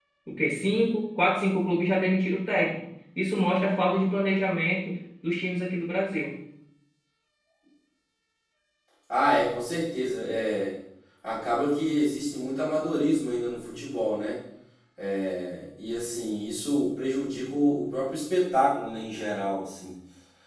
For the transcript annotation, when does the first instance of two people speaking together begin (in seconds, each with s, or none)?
none